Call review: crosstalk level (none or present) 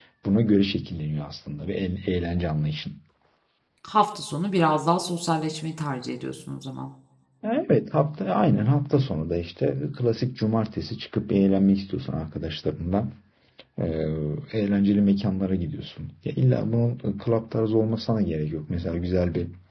none